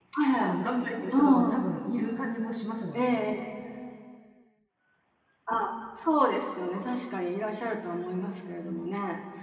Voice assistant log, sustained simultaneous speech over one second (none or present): none